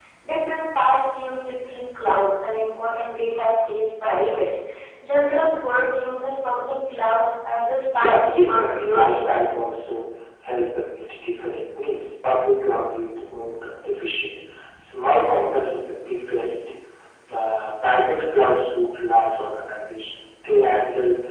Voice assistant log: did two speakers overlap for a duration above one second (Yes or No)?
Yes